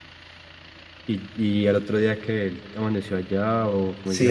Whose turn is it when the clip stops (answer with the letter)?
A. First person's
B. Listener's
B